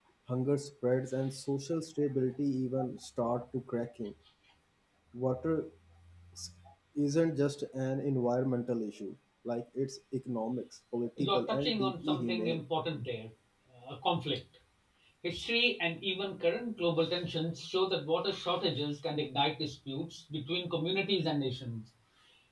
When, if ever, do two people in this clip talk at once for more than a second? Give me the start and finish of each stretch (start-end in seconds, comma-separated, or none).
11.2-12.6